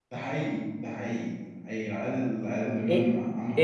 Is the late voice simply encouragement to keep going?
No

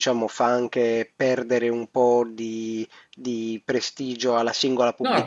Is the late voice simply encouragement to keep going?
No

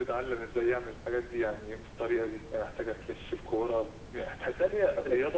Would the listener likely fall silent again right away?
Yes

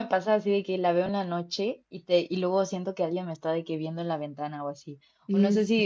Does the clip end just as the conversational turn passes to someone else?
No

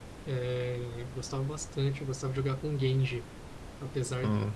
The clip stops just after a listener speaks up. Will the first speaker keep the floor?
Yes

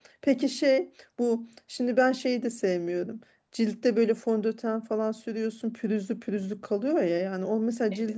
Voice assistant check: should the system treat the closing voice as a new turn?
No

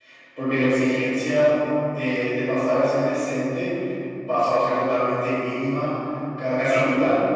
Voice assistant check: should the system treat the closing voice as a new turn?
No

